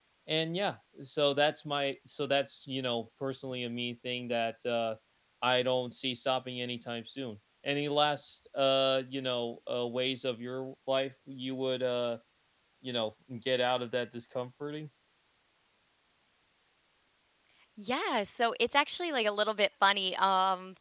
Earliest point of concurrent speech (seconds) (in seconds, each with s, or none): none